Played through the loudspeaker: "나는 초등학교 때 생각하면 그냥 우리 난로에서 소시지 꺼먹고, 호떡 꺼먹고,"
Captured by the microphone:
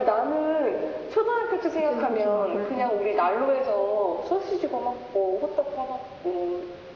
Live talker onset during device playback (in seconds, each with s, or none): 1.7 s